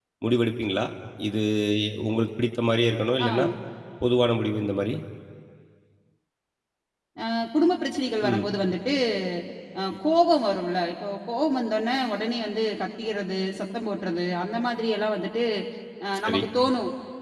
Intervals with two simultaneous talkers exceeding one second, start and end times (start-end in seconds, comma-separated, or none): none